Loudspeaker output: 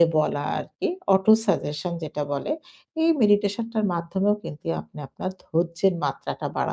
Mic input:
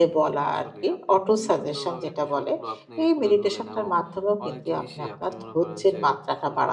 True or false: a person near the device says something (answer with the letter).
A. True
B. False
A